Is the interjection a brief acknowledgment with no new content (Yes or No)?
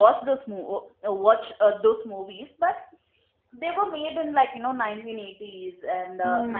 Yes